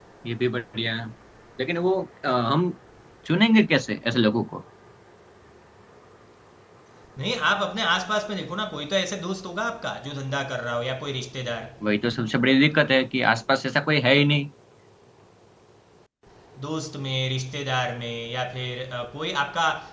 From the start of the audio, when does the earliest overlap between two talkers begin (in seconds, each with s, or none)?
none